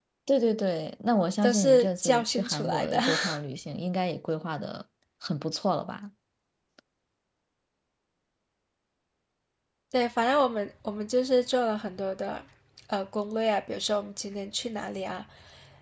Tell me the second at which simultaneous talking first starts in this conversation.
1.4 s

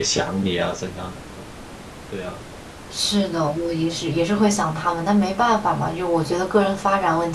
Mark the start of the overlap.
none

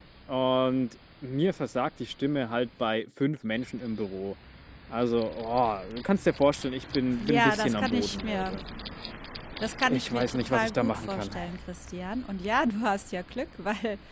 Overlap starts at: 7.2 s

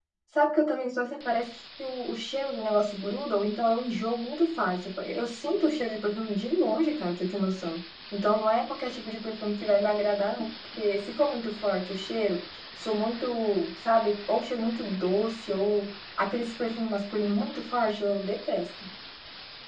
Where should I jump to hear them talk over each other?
none

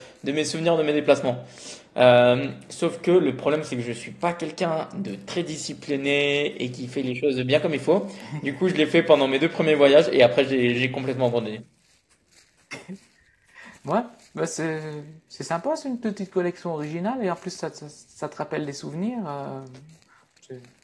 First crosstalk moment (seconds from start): none

